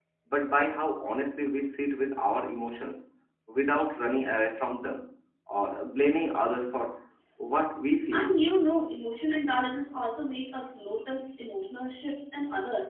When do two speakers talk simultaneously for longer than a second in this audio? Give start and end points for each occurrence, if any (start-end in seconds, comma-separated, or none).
none